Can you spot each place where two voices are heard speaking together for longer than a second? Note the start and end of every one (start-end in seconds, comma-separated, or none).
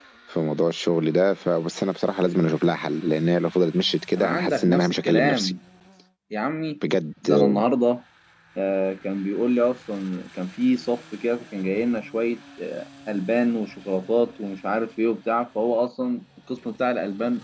4.2-5.5